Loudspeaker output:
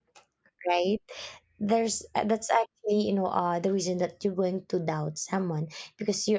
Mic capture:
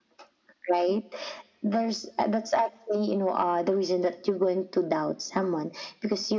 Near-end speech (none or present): none